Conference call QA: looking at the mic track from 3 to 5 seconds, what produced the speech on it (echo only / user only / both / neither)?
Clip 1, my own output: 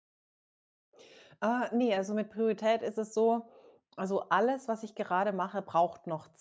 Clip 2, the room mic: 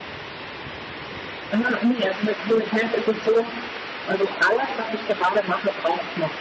echo only